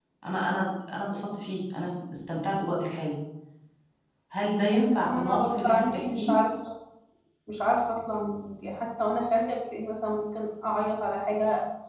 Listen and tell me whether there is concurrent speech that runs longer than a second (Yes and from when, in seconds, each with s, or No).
Yes, from 4.7 s